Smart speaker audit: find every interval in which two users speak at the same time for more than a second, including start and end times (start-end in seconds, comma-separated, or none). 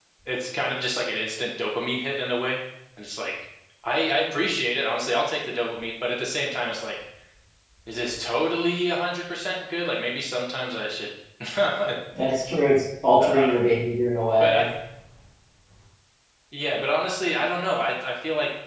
none